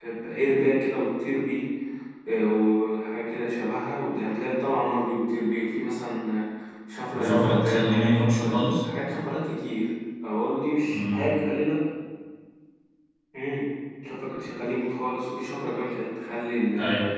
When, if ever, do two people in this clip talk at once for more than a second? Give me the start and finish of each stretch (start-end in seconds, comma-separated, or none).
7.2-8.8